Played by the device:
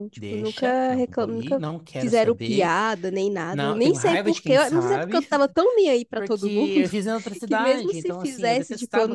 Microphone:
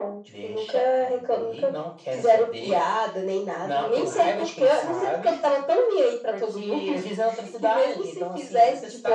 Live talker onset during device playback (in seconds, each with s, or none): none